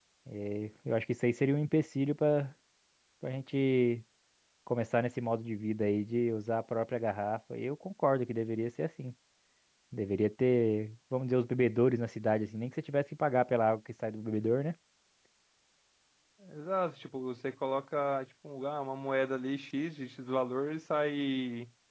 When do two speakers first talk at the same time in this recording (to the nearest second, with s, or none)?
none